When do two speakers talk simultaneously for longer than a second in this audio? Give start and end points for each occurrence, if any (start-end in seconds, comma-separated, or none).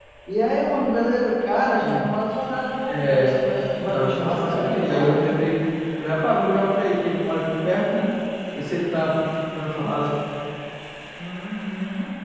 3.9-5.2